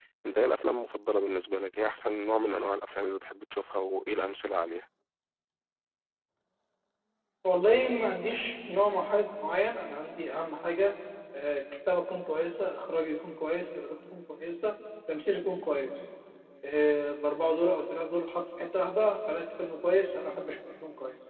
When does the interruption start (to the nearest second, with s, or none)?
none